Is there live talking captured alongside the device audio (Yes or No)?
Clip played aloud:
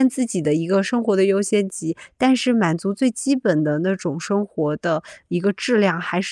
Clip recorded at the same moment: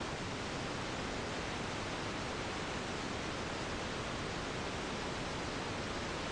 No